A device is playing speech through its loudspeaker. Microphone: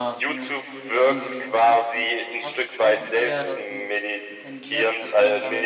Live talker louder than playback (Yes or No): No